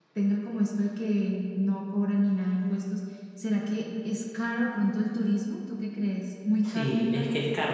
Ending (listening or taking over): taking over